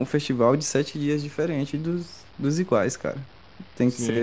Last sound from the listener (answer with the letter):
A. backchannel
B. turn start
B